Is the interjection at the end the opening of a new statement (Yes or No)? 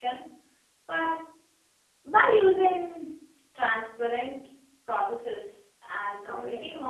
Yes